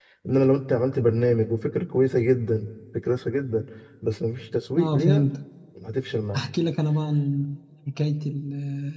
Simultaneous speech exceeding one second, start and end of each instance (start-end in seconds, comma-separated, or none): none